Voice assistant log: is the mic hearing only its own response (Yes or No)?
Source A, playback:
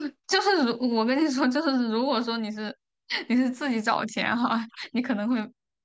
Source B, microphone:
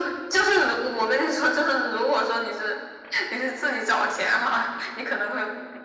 Yes